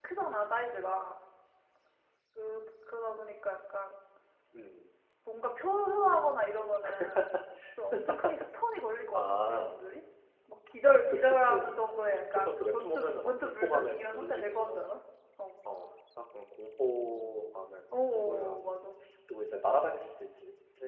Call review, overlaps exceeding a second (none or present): present